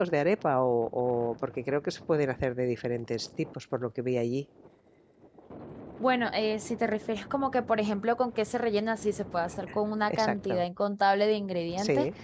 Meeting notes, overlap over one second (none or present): none